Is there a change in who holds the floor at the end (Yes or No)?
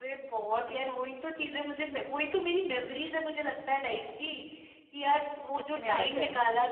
No